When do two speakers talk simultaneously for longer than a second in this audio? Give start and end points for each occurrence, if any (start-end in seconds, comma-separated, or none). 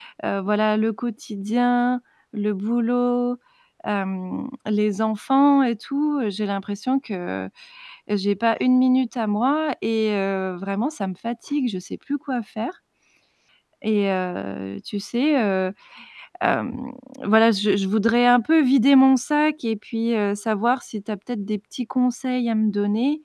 none